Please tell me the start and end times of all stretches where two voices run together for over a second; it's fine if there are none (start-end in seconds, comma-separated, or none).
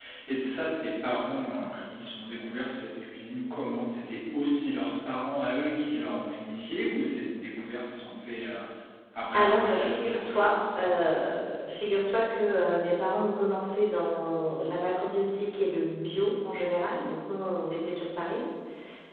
9.3-10.9